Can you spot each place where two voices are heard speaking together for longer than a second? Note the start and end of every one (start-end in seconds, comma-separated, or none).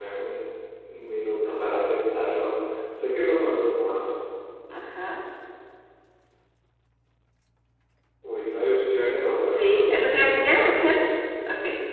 9.5-11.0